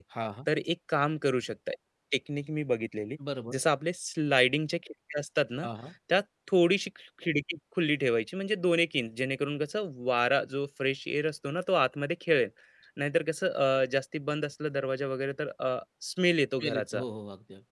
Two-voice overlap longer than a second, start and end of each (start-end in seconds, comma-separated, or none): none